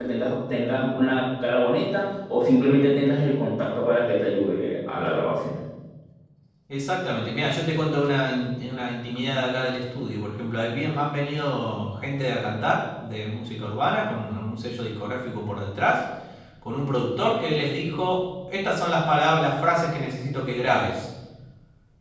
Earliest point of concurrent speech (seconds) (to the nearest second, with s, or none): none